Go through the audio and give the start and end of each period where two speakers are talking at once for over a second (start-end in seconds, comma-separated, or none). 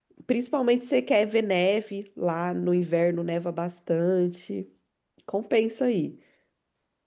none